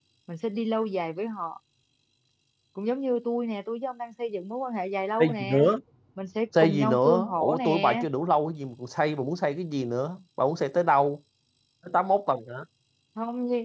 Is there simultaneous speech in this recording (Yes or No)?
Yes